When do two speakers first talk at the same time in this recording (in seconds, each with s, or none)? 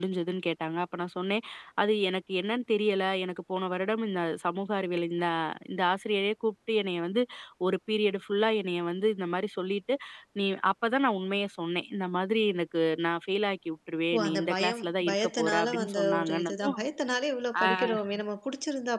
14.1 s